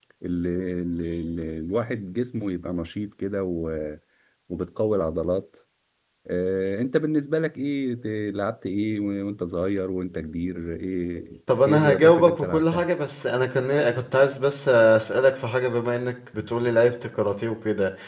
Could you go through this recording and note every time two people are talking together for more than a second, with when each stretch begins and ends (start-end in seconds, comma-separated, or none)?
11.6-12.9